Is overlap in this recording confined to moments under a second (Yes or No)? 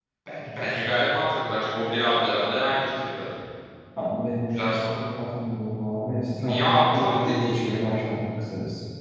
No